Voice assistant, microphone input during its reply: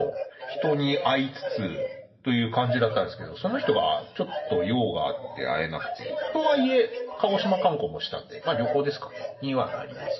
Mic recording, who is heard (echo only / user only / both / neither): both